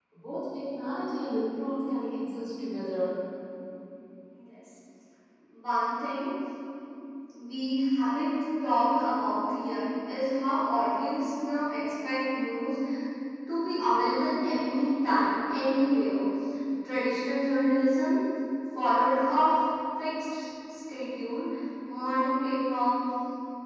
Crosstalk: none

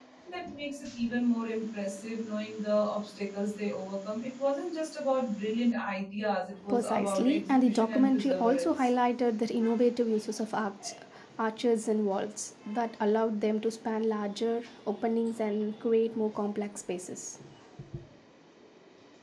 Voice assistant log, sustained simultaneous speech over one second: present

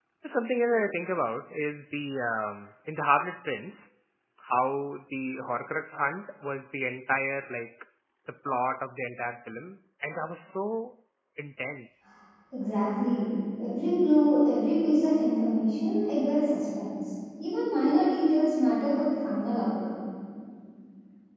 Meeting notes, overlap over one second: none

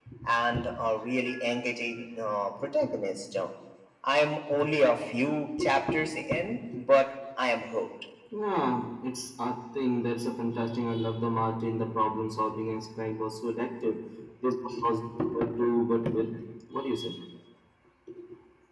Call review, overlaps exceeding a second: none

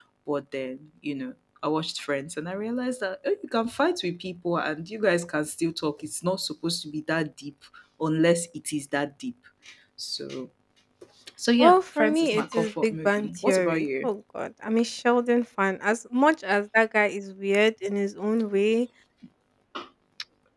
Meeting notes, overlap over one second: present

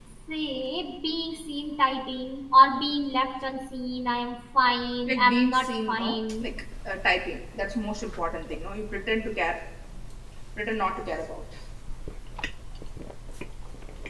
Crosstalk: present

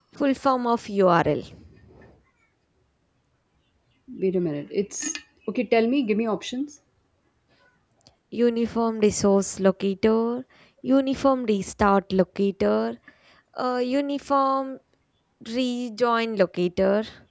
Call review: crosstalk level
none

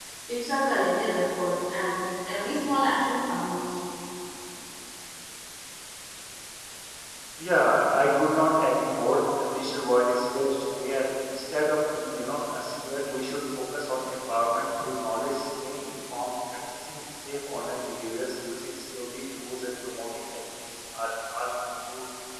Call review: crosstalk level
none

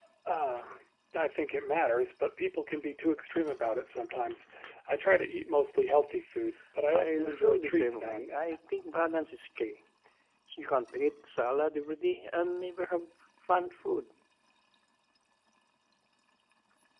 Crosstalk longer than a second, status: present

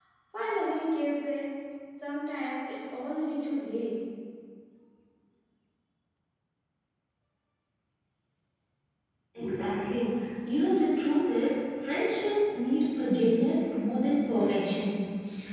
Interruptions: none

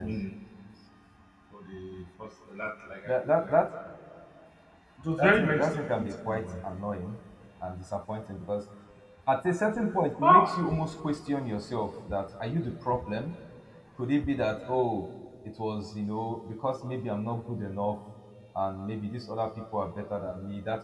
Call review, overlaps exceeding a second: present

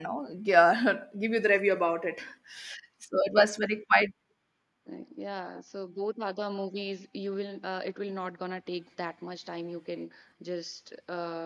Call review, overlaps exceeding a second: none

